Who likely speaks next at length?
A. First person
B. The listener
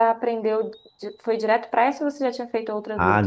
B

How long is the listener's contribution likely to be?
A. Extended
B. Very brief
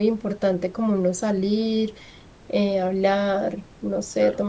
A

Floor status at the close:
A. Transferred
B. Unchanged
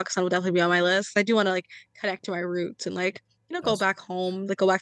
B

